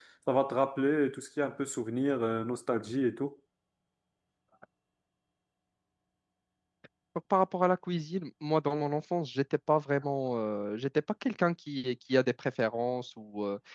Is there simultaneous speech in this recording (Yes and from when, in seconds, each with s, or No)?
No